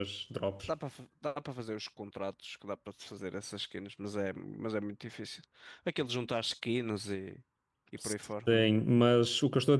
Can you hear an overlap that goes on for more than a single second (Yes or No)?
No